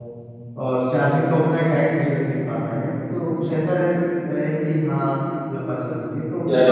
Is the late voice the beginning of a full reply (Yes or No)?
Yes